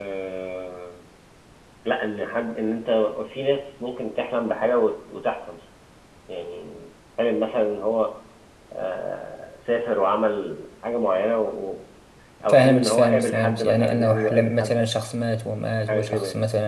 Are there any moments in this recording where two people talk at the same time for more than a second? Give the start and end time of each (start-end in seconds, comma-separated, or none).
12.5-14.8